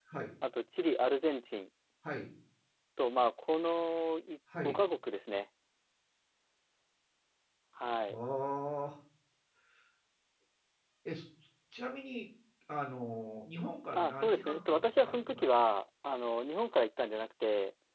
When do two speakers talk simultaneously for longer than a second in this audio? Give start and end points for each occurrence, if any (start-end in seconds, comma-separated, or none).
13.9-15.5